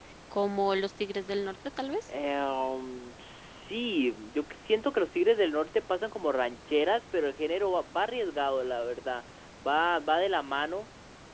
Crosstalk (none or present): none